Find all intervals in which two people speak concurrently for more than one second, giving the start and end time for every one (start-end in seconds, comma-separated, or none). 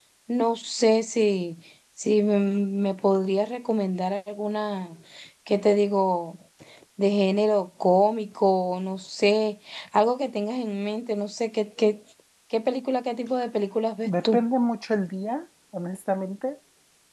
none